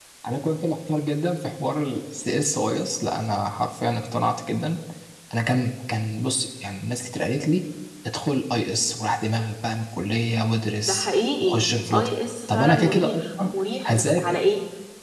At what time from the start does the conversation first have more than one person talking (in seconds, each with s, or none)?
10.8 s